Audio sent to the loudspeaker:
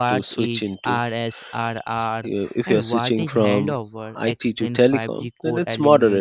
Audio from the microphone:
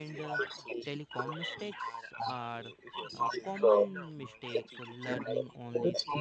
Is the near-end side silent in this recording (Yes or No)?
No